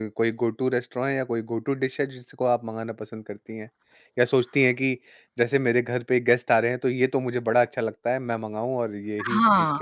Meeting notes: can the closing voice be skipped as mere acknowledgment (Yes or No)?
No